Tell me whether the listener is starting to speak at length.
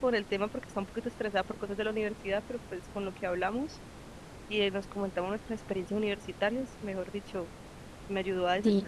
Yes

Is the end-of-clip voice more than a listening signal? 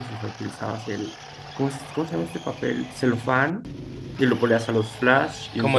No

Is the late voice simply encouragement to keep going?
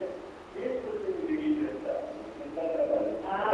No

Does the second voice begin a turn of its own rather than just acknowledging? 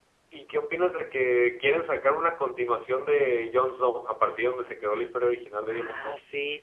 Yes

